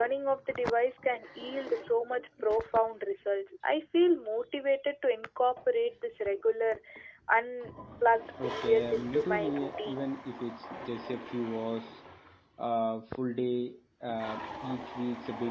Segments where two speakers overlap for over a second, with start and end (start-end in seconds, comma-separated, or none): 8.4-10.1